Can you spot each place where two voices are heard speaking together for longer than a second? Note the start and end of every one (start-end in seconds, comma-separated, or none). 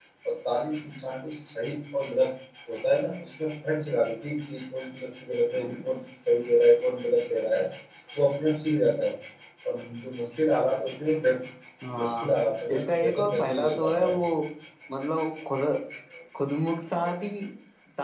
12.7-14.1